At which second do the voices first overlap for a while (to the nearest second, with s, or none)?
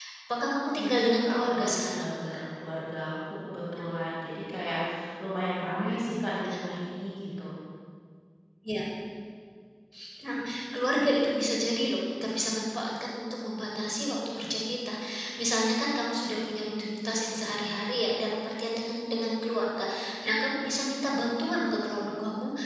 1 s